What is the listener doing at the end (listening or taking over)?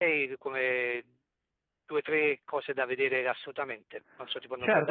taking over